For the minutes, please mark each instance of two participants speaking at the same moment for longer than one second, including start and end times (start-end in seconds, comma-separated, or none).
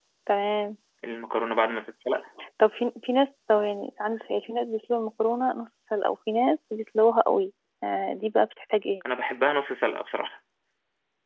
none